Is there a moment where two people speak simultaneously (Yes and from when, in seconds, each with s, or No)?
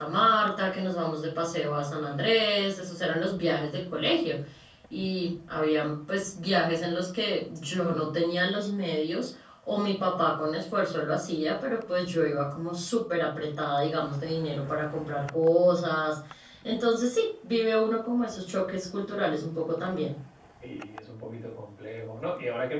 No